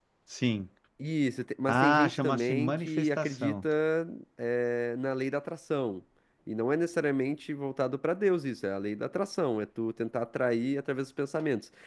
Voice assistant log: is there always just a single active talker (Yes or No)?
No